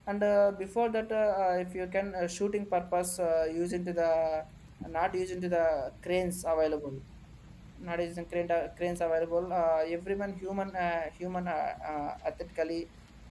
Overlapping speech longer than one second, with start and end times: none

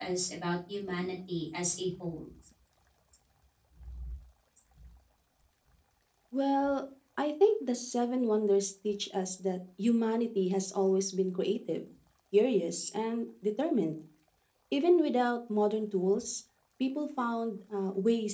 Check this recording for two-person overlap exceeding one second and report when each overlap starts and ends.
none

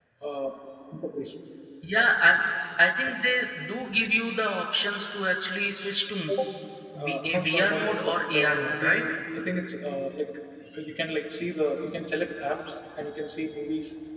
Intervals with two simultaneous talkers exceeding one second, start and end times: 7.0-9.0

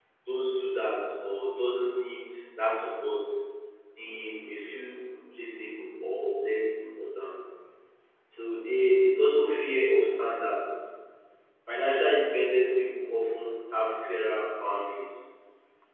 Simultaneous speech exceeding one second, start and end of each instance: none

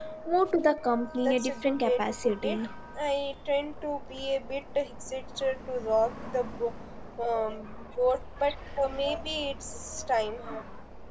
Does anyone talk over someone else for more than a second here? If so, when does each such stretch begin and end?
1.2-2.7

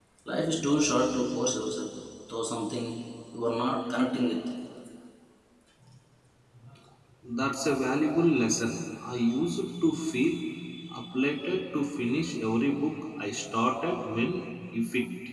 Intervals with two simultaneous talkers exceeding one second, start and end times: none

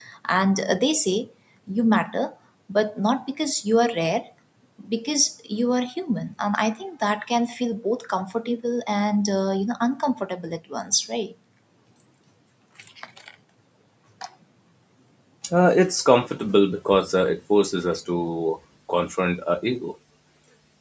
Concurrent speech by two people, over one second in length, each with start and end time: none

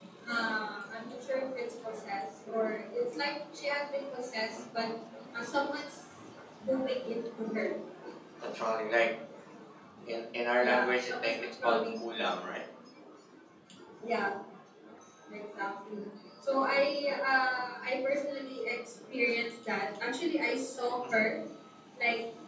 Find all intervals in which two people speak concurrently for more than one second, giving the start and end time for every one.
10.6-12.3

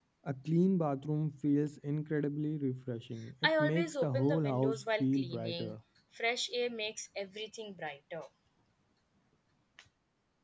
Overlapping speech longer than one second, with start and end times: 3.4-5.8

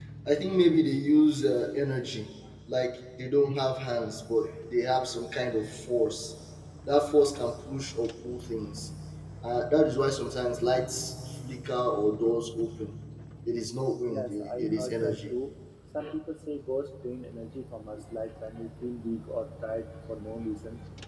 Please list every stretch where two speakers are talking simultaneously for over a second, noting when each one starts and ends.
14.1-15.3

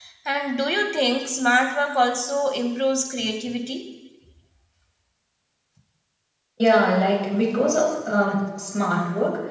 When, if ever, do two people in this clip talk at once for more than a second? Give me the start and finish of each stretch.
none

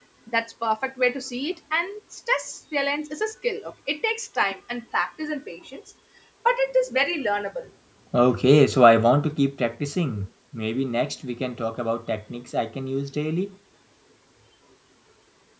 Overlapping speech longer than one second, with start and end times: none

